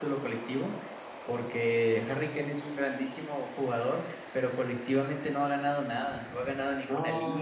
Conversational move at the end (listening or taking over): listening